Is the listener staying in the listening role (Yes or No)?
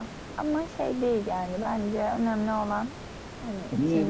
No